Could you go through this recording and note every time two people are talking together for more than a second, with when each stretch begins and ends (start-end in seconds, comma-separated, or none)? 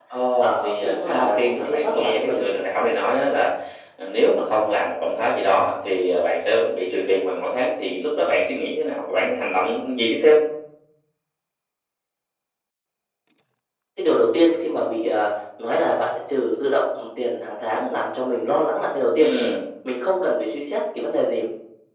0.6-2.5